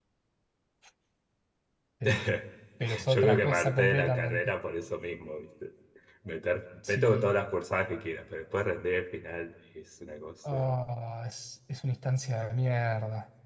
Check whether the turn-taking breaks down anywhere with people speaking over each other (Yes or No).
Yes